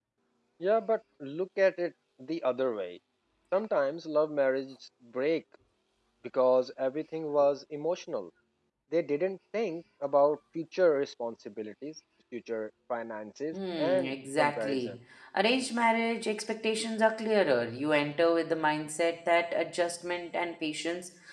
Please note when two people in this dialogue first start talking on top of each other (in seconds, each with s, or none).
13.5 s